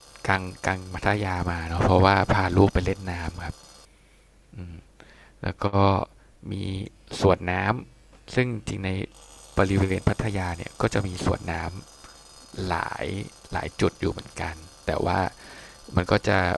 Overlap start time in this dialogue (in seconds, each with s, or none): none